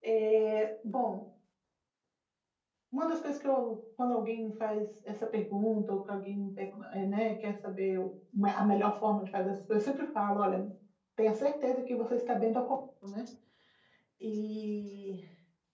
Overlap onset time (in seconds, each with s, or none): none